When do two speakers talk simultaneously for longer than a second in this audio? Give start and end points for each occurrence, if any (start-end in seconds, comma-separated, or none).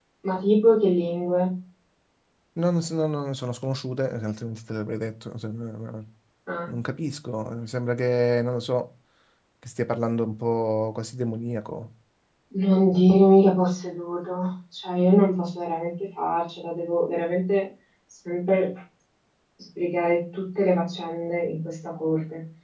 none